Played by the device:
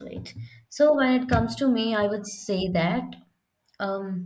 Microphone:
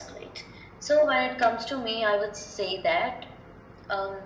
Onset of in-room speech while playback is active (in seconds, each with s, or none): none